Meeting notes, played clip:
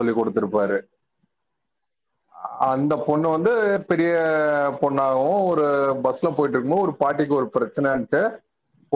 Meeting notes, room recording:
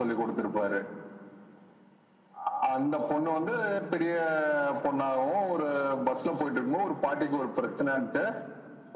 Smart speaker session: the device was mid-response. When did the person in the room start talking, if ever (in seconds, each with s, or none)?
none